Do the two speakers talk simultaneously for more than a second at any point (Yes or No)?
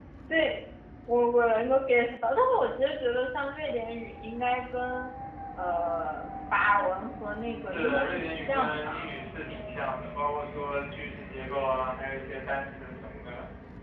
Yes